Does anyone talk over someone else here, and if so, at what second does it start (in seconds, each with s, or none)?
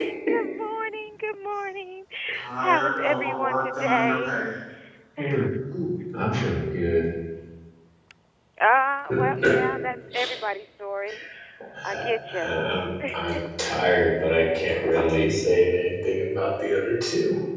2.6 s